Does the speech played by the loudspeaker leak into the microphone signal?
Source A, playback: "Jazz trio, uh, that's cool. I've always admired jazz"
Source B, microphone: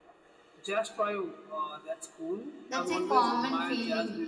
Yes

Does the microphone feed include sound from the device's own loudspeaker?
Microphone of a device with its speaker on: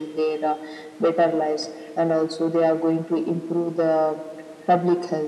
Yes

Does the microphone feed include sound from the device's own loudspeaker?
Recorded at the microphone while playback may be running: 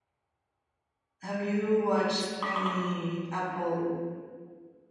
No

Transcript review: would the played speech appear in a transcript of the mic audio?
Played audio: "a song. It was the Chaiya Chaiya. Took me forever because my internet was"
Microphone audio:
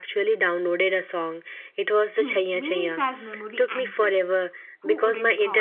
Yes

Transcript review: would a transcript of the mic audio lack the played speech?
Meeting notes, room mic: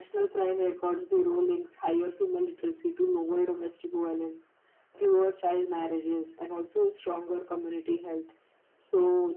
No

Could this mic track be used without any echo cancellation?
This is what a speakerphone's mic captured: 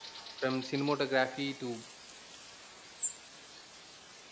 Yes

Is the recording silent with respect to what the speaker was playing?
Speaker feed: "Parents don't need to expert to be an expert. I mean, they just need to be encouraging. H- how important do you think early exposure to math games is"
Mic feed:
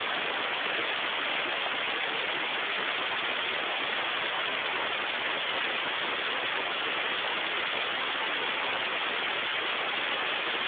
Yes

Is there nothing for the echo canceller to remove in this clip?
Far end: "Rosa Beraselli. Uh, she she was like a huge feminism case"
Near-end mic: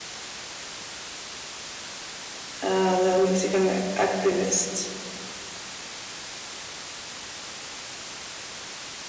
Yes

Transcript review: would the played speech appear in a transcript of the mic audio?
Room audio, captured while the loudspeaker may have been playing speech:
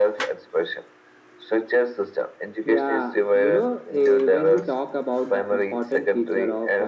Yes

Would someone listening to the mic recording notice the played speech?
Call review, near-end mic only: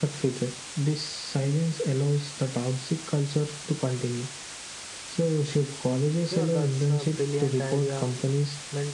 Yes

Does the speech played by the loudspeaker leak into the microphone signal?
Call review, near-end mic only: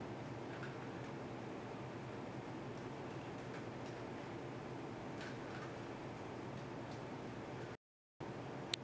No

